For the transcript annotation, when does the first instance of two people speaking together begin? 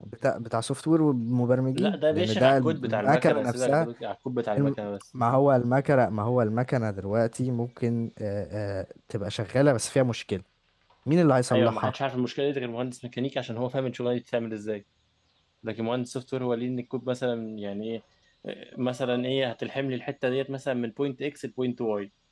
2 s

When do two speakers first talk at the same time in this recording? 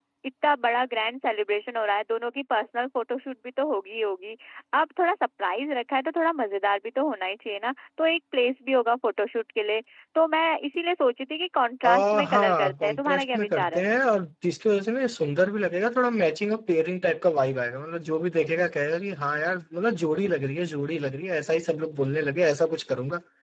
12 s

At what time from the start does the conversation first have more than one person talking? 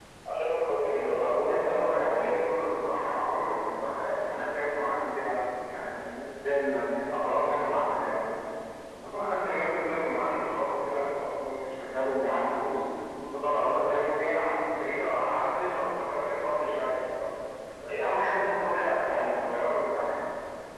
1 s

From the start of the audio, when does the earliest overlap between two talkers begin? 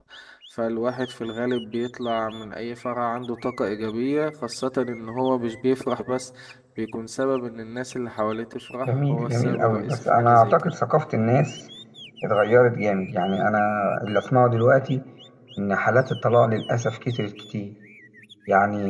9 s

